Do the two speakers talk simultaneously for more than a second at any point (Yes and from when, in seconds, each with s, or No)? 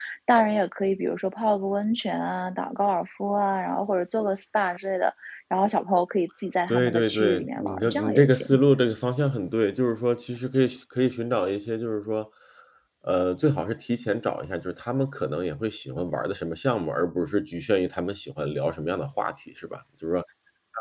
Yes, from 6.7 s